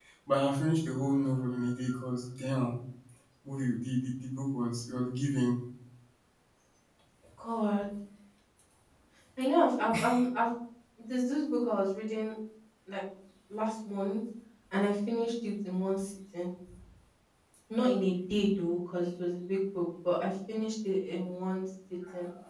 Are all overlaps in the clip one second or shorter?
Yes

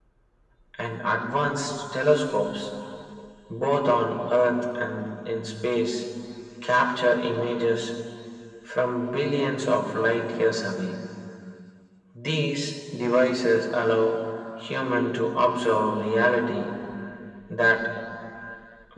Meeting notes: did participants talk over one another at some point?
No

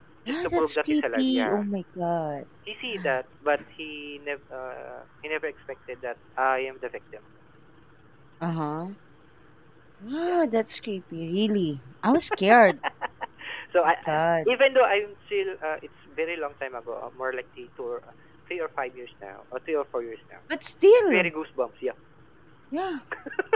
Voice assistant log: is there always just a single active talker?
No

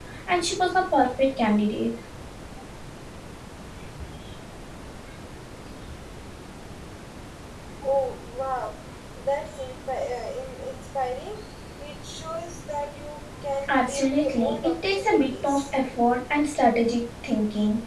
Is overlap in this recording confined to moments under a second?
No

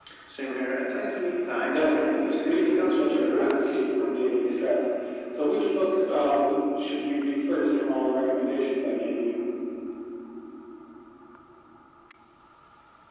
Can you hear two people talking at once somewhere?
Yes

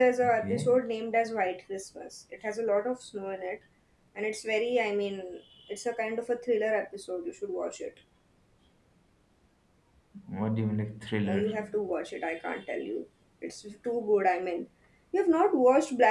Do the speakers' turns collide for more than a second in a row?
No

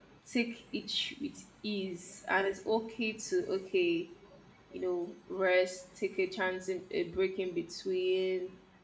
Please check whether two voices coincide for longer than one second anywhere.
No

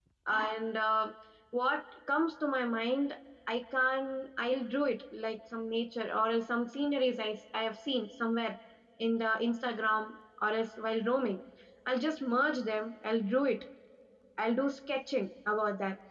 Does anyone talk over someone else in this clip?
No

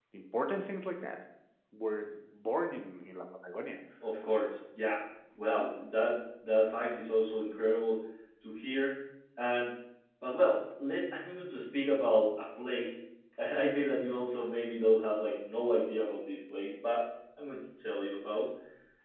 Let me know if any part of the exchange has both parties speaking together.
No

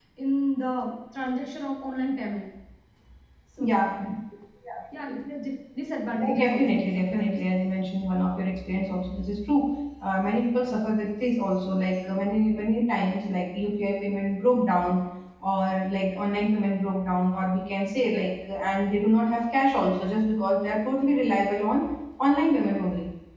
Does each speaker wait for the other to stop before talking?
No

